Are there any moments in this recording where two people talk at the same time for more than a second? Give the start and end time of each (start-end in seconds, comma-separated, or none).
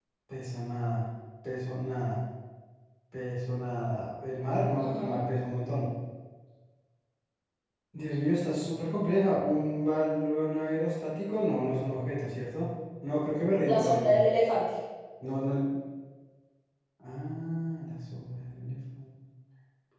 none